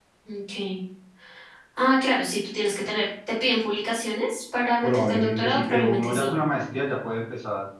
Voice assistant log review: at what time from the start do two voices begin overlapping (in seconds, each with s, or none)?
4.8 s